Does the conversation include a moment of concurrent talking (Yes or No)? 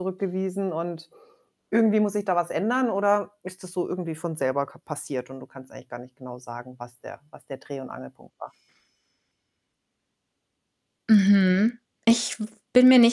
No